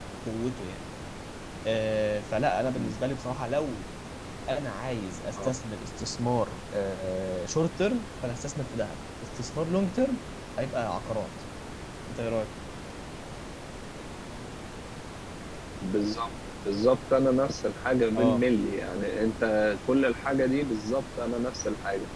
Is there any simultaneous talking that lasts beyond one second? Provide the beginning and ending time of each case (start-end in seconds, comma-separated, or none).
none